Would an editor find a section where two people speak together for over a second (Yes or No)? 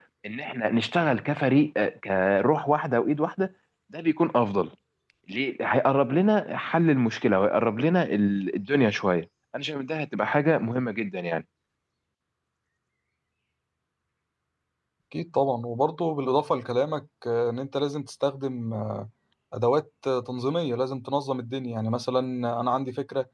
No